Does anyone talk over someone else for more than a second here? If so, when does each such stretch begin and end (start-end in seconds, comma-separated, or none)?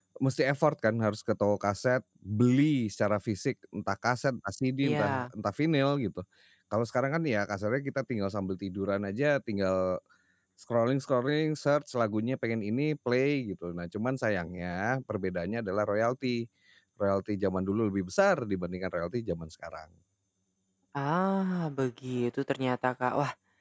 none